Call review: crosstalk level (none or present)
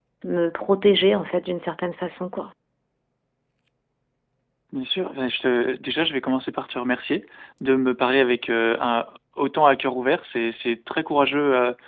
none